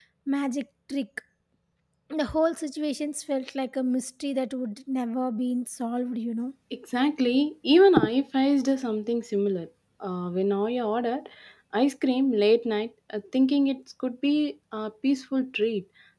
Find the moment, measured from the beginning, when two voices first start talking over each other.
none

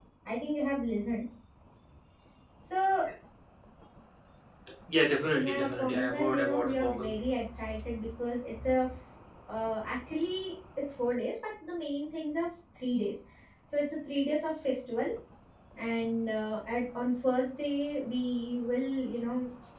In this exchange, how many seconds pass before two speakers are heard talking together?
5.3 s

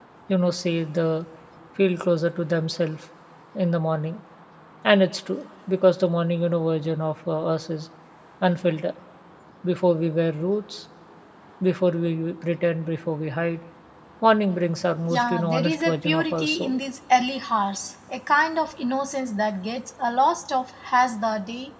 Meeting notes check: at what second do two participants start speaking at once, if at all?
15.1 s

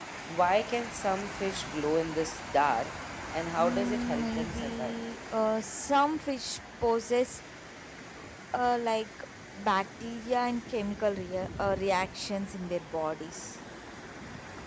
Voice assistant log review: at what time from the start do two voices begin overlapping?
3.6 s

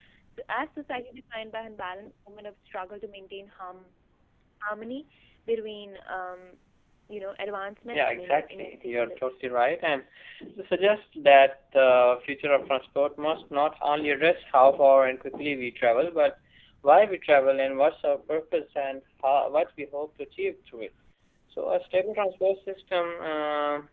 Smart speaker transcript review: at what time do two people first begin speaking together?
7.9 s

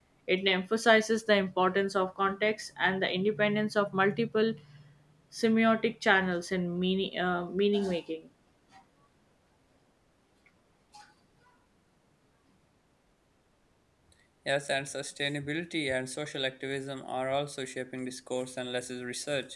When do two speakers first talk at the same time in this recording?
none

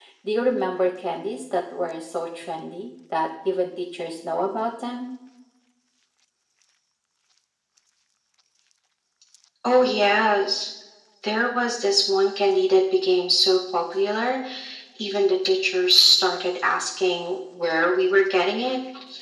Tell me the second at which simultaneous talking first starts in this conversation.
none

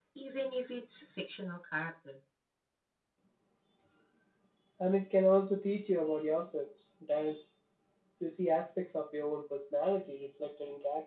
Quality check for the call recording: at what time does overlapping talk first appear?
none

